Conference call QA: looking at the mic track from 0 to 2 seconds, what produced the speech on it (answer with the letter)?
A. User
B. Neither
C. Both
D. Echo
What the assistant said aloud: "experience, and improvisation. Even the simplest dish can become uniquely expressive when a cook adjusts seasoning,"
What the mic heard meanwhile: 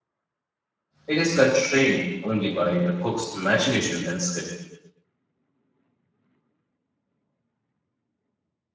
A